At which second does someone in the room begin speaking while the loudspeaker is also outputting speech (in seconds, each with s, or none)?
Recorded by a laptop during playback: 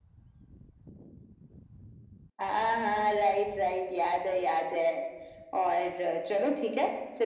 none